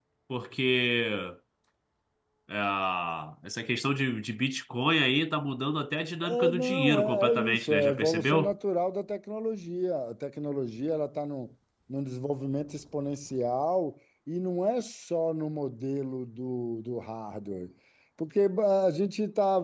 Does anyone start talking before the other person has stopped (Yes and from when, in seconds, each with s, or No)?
Yes, from 6.2 s